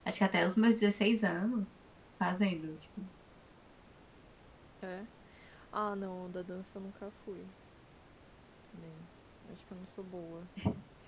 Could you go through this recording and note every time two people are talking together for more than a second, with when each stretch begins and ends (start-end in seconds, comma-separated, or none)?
none